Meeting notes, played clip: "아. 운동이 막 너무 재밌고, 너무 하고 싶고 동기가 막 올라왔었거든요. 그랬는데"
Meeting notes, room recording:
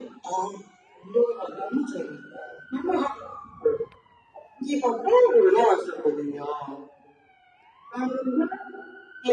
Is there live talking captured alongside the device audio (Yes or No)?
No